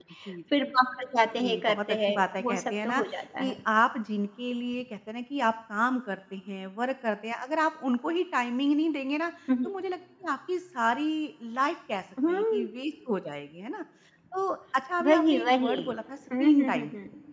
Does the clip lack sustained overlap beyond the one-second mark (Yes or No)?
No